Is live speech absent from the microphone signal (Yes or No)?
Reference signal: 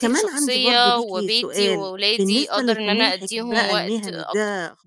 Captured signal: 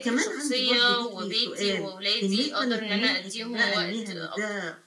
Yes